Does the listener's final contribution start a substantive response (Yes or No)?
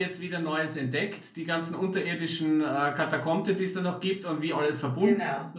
No